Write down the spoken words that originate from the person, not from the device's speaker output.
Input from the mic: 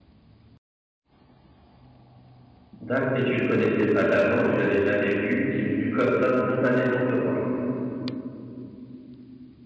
D'acc et tu le connaissais pas d'avant, tu l'avais jamais vu, il est venu comme ça spontanément te voir?

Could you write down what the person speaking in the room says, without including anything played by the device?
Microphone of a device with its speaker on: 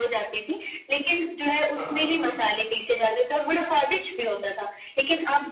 हाँ, हाँ।

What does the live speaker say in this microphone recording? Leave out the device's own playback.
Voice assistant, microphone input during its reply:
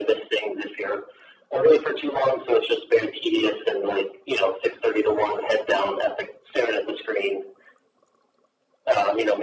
none

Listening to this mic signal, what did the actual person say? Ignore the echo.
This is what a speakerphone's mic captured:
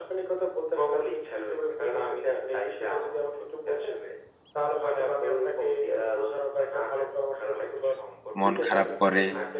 মন খারাপ করে

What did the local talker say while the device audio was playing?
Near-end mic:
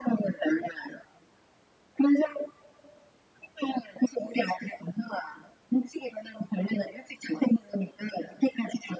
none

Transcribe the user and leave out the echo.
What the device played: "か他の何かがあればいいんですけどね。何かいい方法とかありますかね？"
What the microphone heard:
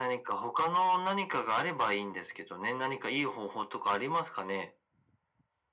none

